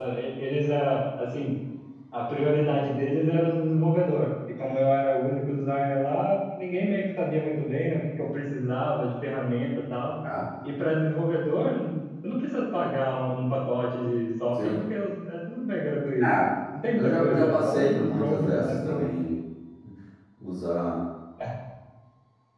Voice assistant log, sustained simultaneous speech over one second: present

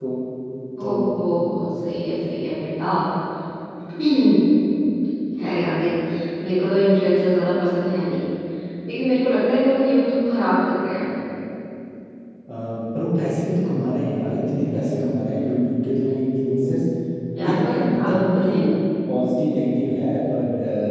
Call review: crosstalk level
present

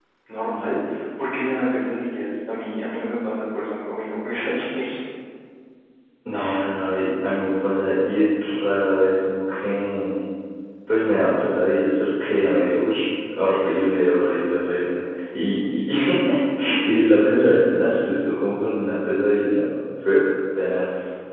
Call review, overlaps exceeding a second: none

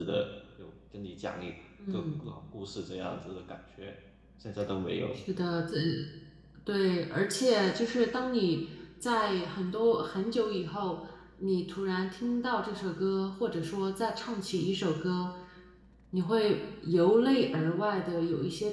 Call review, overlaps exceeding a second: none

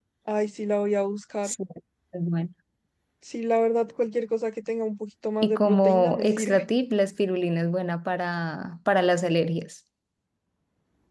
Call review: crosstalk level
present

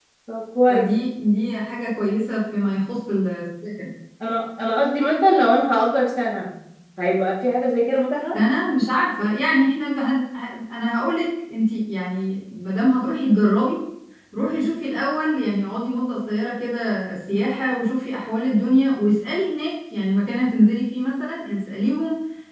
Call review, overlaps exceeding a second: none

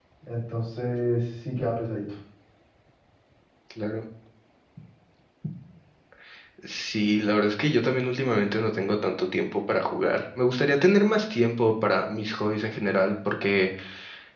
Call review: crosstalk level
none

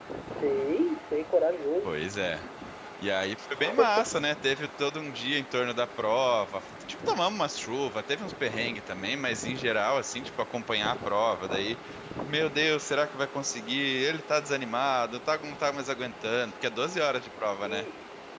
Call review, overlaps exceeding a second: none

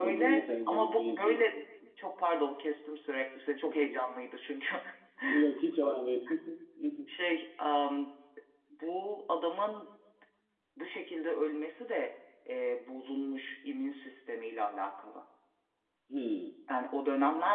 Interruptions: present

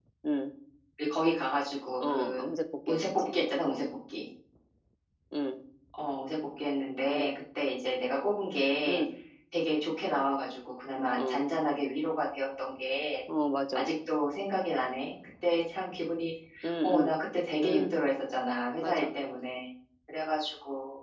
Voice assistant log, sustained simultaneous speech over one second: none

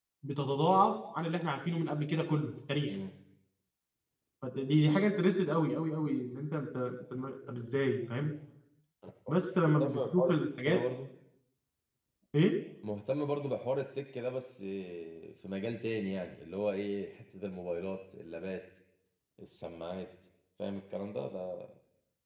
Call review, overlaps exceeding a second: present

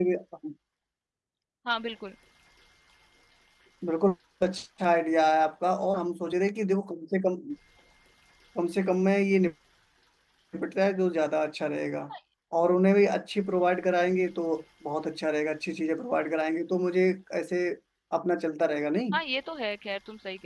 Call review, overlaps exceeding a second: none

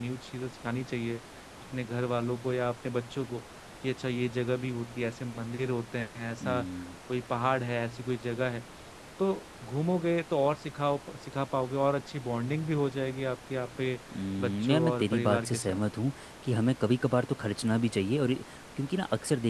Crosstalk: present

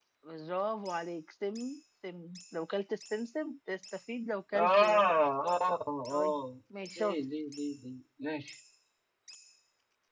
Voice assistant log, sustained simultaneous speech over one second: none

